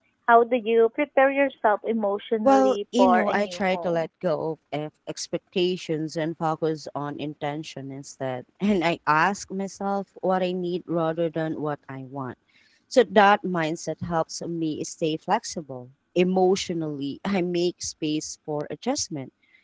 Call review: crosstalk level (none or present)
present